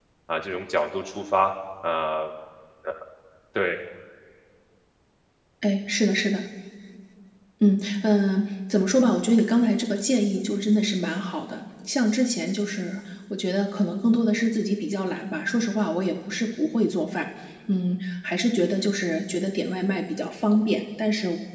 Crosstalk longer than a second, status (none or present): none